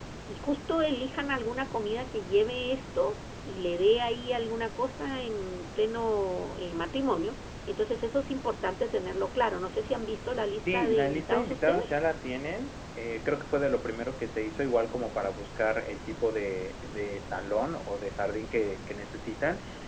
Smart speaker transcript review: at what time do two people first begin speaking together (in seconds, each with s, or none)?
10.6 s